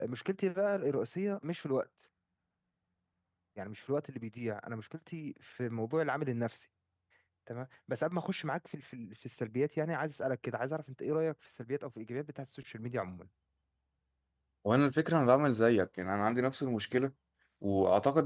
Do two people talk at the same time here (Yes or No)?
No